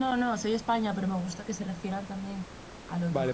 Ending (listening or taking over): taking over